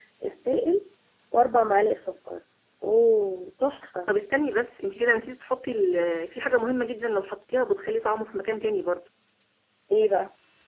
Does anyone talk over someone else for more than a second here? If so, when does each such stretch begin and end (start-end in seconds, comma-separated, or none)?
none